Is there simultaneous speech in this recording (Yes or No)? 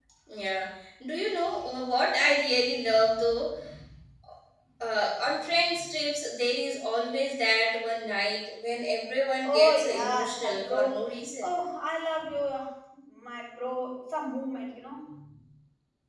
Yes